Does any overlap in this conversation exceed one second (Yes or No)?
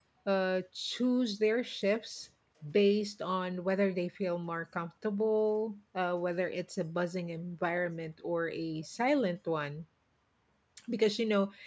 No